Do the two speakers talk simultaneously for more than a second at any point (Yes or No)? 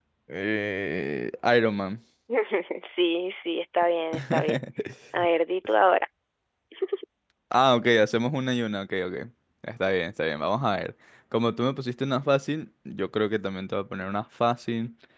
No